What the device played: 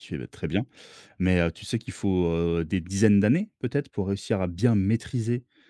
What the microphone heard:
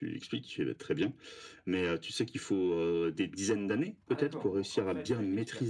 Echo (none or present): present